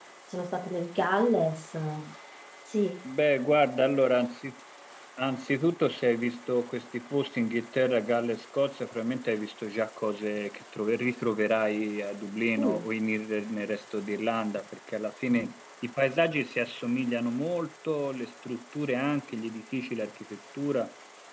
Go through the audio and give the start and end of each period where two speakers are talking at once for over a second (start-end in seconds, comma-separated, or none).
none